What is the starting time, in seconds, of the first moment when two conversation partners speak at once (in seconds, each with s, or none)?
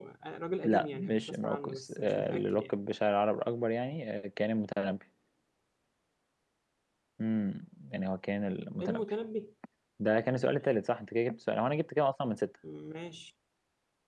0.6 s